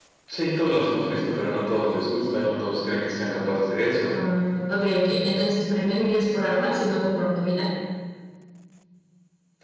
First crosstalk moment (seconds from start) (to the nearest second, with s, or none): none